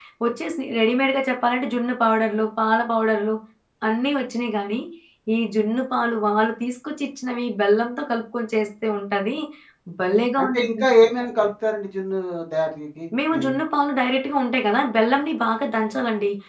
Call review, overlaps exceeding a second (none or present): none